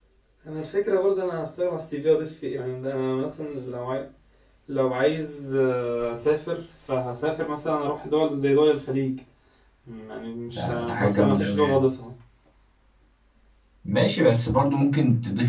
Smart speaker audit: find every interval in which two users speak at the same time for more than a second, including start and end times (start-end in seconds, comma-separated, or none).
10.6-11.8